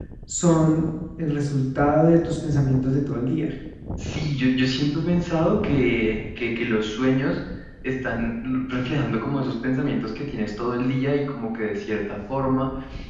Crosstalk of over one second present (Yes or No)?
No